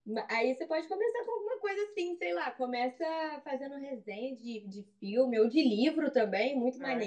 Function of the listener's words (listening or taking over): taking over